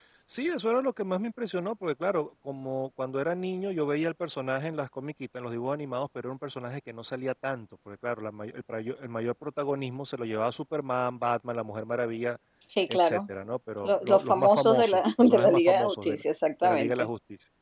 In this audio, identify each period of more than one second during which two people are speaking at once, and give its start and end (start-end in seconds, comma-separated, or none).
13.8-16.2